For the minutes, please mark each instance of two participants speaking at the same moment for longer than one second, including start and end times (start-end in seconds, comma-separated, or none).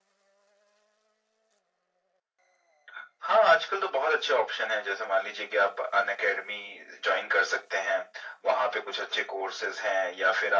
none